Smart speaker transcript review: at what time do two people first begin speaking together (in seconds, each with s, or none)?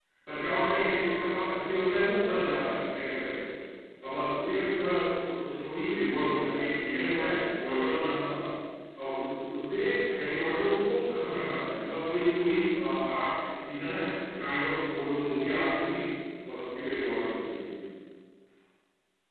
none